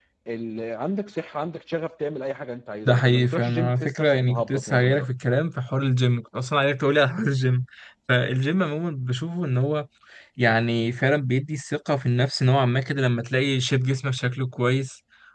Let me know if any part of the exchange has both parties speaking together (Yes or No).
Yes